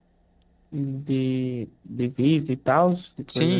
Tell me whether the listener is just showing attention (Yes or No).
No